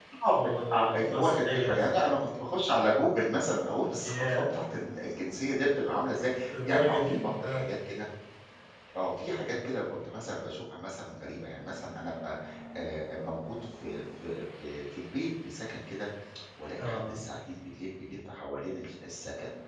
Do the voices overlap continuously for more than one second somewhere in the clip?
Yes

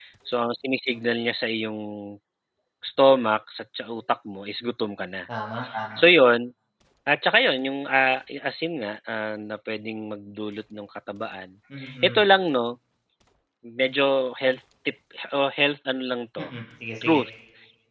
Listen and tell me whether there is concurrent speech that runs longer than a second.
No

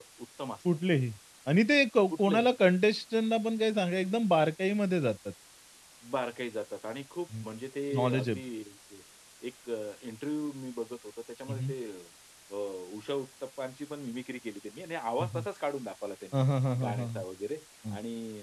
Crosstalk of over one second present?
No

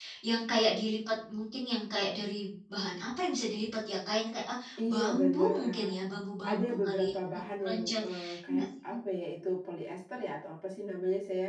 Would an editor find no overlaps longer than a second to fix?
No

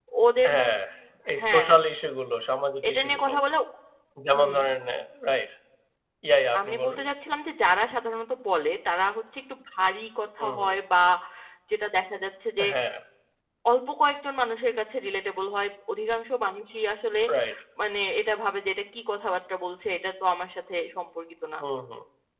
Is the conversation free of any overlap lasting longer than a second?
Yes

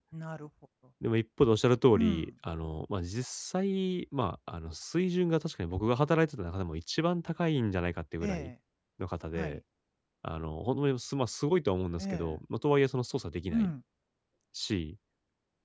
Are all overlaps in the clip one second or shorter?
Yes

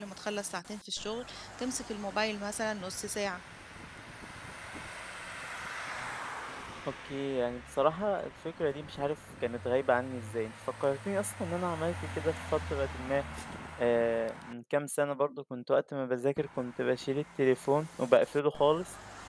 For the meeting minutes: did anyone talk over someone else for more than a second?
No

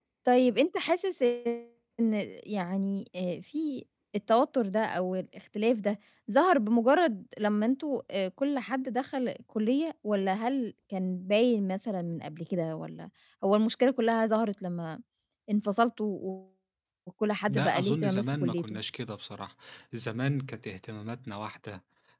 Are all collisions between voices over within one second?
No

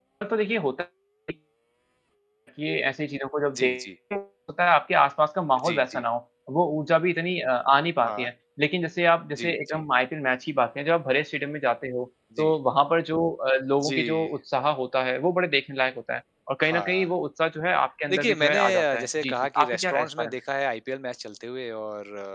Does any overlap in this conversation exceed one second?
Yes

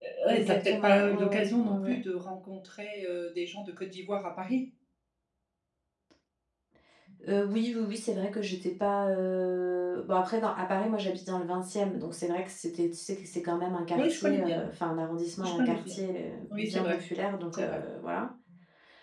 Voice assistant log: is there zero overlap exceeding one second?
No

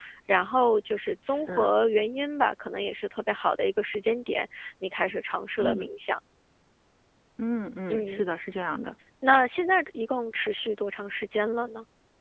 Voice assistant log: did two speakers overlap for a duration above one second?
No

